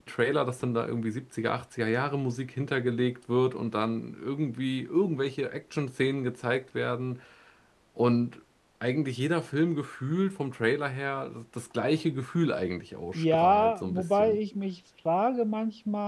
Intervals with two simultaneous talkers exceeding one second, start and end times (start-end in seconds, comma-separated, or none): 13.1-14.4